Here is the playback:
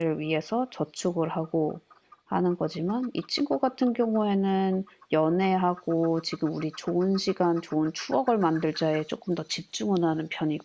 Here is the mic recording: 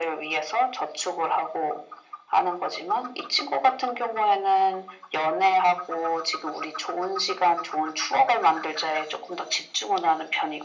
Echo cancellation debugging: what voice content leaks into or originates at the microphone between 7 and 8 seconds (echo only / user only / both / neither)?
echo only